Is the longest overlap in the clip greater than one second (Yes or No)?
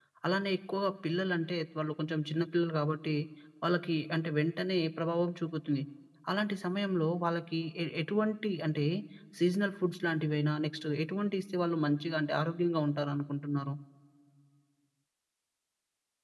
No